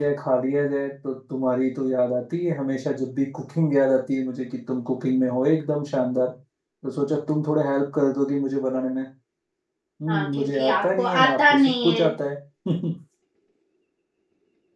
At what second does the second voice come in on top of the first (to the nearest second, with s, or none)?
10 s